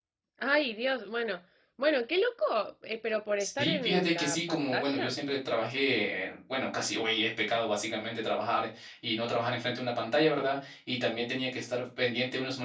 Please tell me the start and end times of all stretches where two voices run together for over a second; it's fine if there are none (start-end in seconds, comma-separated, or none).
3.6-5.2